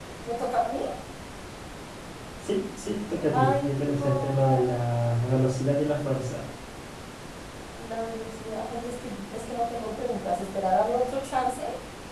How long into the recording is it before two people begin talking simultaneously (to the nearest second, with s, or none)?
3 s